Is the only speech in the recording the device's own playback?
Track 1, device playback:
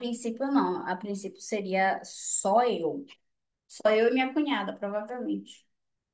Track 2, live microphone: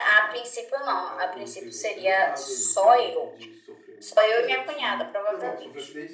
No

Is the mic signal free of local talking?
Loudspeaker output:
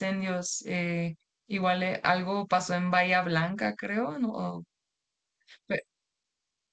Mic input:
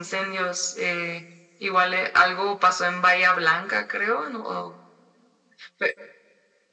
Yes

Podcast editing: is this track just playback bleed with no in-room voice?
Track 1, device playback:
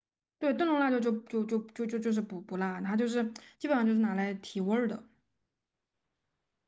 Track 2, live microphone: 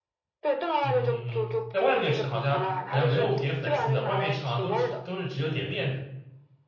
No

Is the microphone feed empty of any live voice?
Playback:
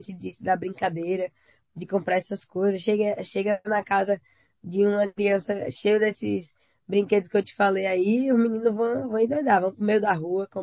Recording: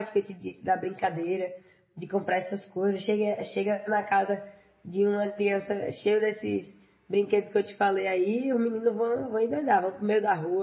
Yes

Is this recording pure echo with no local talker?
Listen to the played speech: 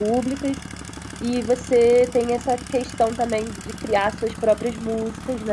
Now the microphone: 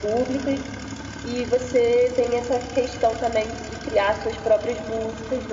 Yes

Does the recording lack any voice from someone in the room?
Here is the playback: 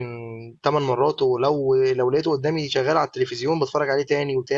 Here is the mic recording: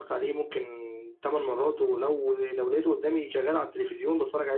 Yes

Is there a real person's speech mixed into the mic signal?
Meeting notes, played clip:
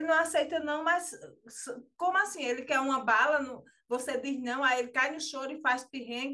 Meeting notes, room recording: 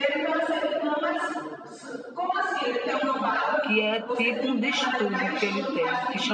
Yes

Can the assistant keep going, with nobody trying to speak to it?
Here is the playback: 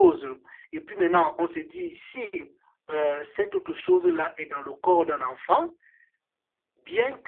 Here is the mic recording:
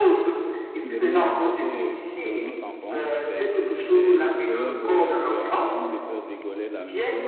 No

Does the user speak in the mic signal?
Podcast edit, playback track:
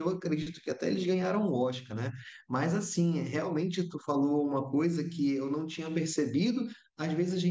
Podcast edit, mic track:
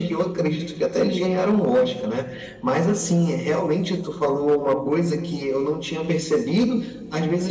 No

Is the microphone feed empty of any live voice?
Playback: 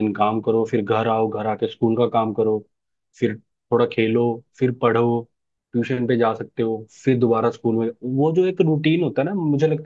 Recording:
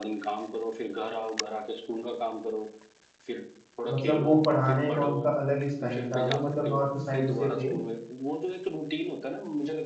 No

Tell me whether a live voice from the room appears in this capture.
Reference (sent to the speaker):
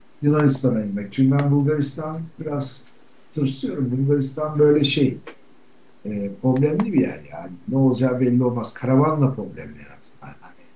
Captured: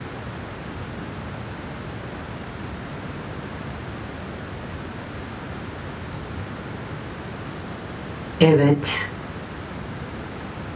Yes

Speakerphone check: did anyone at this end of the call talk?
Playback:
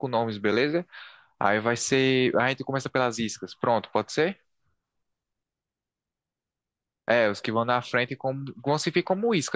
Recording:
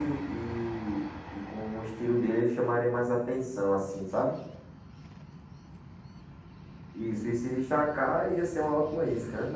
Yes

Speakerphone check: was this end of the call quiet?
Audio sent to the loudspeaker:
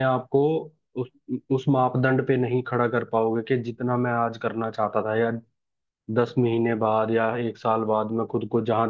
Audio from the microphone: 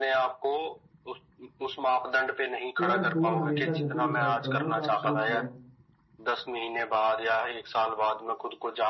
No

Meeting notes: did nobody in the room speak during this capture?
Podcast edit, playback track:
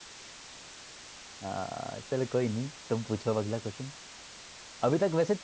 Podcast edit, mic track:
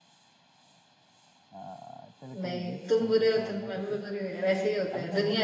No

